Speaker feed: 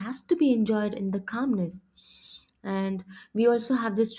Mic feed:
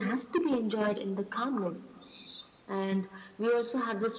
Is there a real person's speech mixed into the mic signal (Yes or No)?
No